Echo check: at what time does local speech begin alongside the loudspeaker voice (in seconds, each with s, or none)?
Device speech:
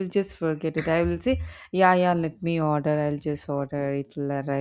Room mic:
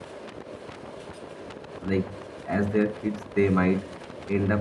1.9 s